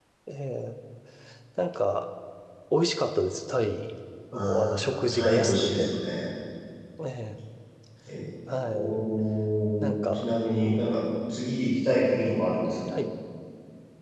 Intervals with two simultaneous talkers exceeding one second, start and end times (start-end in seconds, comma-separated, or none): 4.3-5.9